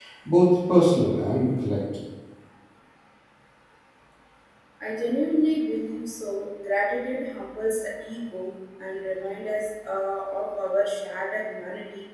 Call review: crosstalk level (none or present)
none